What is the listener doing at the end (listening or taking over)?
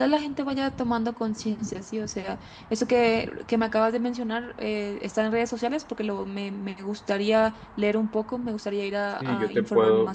taking over